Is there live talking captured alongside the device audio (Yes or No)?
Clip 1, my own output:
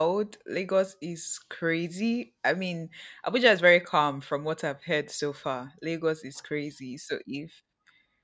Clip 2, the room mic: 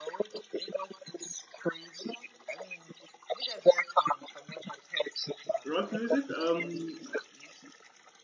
Yes